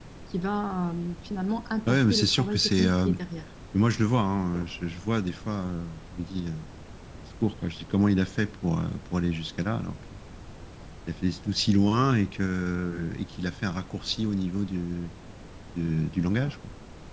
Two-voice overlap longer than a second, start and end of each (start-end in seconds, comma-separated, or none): 1.9-3.1